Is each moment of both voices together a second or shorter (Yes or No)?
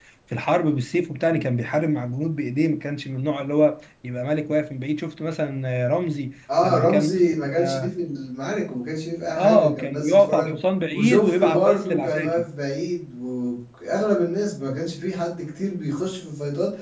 No